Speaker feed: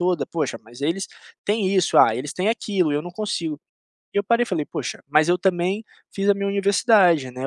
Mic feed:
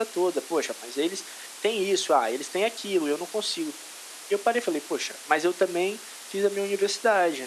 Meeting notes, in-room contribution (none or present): none